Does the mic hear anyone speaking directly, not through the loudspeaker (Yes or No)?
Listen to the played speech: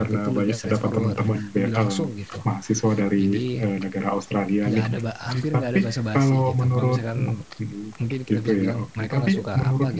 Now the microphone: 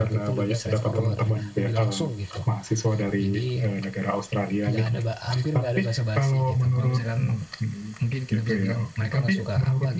No